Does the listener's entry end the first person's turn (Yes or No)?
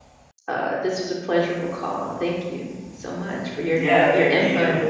Yes